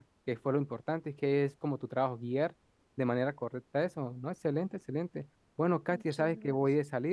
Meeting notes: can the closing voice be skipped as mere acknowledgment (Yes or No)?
Yes